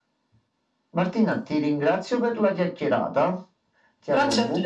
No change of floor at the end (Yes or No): No